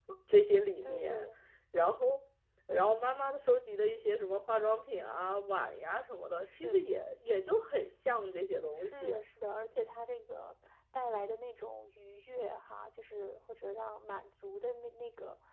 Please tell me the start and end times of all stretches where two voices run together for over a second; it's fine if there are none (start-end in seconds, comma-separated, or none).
none